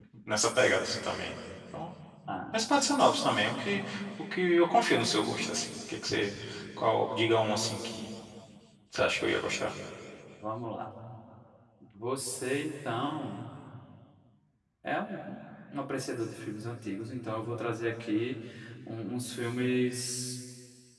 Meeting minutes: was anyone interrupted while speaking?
No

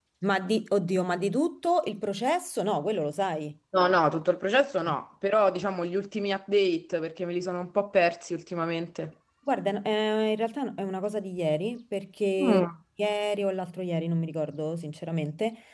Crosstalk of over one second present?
No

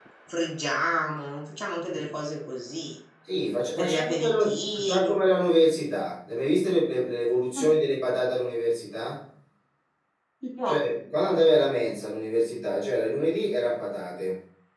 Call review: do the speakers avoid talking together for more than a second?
No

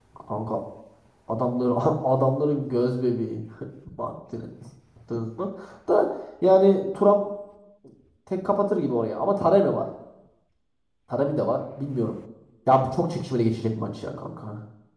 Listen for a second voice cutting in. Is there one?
No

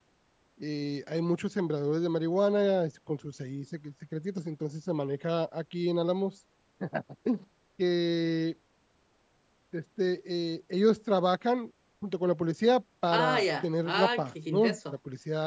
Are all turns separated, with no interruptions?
No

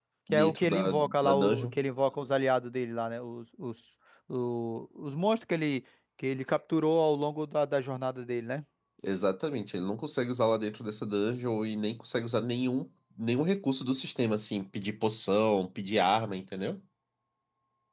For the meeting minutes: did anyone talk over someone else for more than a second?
Yes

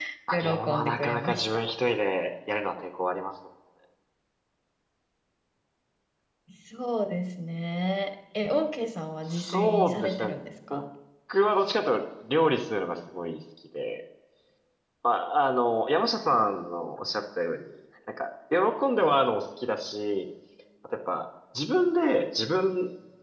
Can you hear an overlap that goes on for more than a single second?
Yes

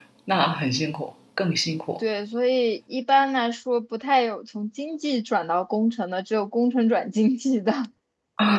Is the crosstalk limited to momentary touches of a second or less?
Yes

